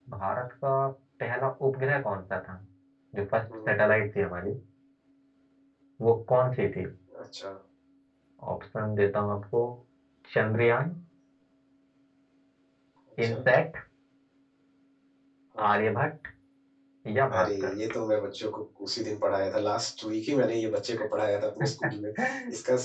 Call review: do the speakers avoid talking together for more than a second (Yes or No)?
Yes